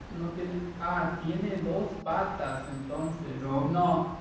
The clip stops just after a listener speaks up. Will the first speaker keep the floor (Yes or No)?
Yes